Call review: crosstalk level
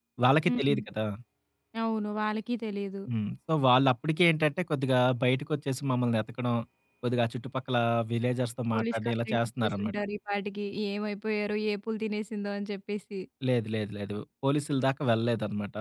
present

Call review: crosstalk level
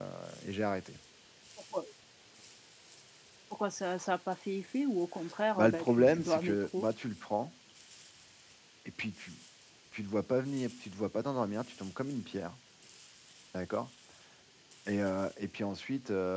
present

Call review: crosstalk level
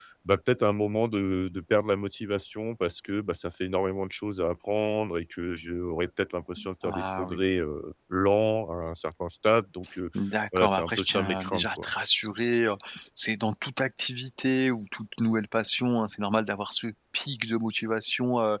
present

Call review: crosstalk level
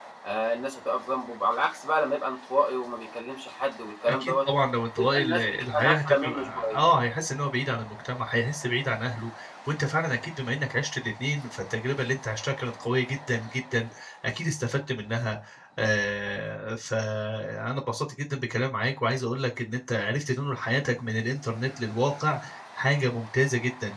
present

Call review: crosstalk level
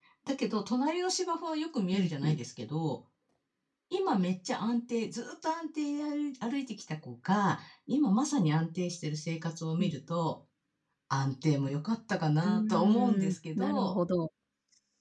present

